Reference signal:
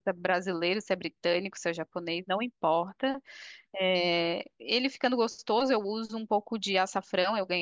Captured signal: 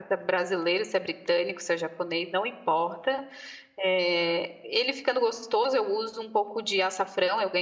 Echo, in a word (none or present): present